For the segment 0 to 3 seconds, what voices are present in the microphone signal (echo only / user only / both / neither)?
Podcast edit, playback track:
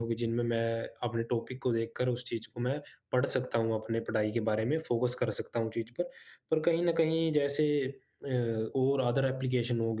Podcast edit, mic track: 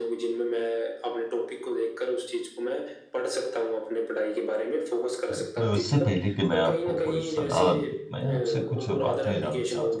echo only